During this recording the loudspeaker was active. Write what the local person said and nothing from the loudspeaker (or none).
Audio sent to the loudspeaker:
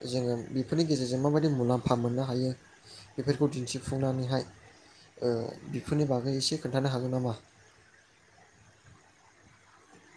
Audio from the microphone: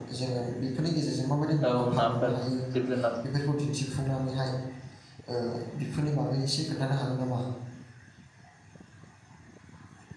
औ नाफोर जिब जुनार